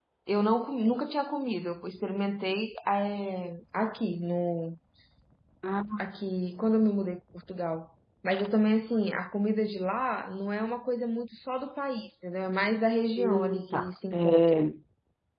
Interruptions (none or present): present